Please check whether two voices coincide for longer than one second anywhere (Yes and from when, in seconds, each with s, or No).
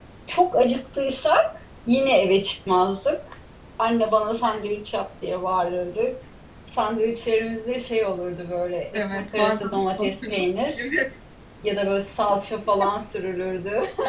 Yes, from 8.9 s